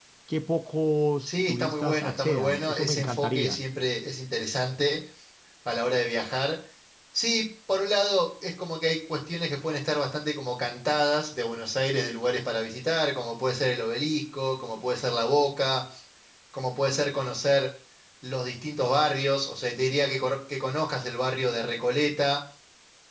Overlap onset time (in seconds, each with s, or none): 1.3 s